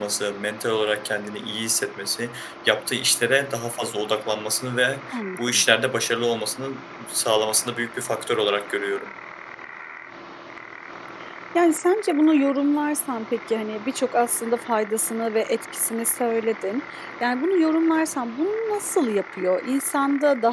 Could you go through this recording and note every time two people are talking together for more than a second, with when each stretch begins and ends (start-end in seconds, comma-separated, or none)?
none